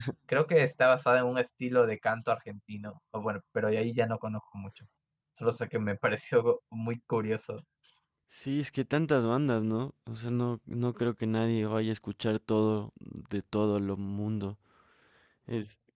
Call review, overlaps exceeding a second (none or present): none